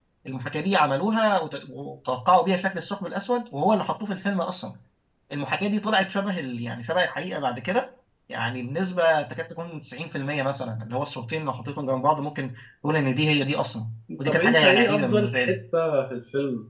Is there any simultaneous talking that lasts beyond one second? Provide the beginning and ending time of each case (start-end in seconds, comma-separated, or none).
14.2-15.6